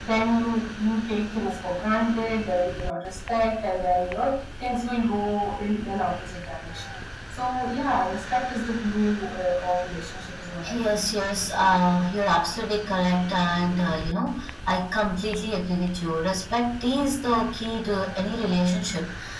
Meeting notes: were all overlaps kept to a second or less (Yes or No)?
Yes